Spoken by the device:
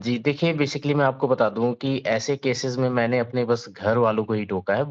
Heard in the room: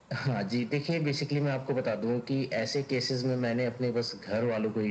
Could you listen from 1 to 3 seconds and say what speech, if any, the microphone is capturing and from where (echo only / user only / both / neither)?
echo only